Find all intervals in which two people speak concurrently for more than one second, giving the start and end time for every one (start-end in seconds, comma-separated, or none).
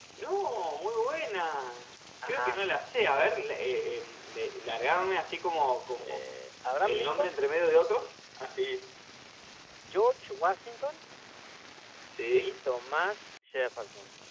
none